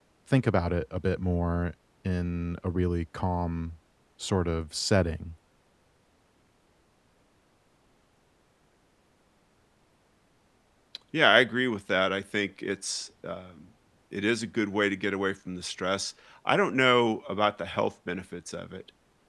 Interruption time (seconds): none

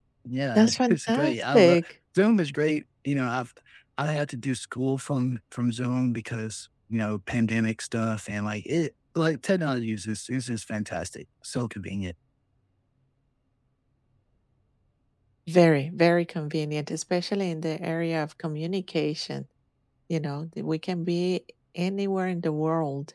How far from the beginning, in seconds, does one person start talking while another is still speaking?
0.5 s

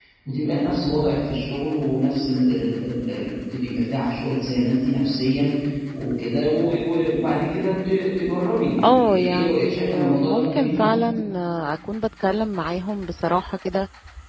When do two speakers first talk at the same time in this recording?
8.8 s

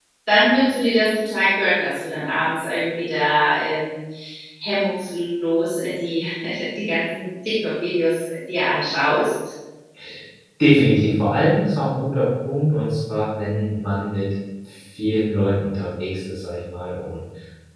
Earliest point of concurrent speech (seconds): none

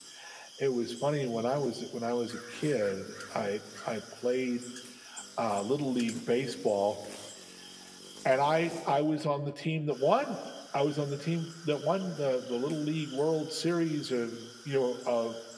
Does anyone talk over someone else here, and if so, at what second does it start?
none

